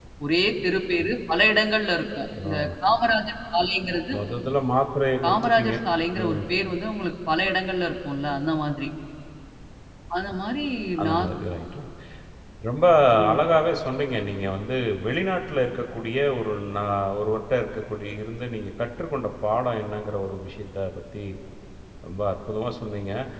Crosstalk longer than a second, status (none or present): none